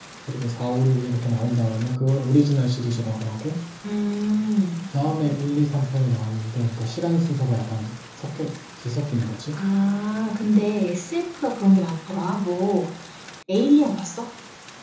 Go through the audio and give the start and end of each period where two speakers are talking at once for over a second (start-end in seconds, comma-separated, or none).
none